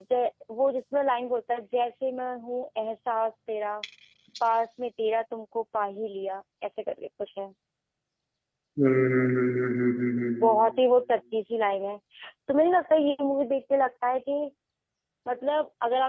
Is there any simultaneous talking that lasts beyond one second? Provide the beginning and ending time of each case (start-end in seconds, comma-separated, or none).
none